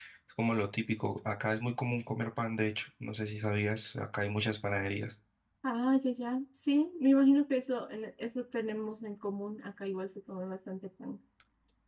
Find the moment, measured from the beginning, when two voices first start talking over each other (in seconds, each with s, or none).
none